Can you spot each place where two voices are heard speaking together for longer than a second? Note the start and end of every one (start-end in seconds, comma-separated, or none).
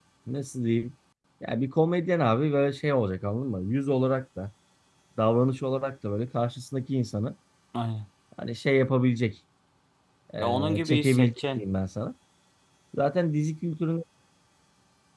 10.4-11.6